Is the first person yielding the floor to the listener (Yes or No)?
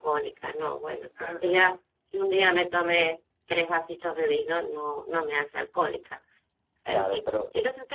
No